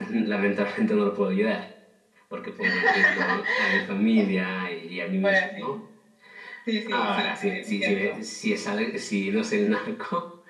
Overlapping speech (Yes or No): Yes